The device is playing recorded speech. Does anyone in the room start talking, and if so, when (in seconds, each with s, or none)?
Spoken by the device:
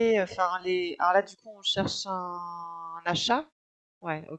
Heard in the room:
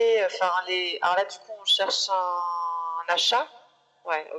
none